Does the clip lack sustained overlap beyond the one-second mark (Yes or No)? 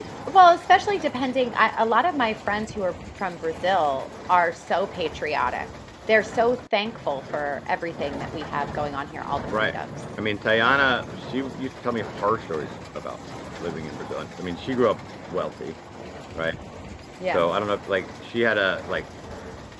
Yes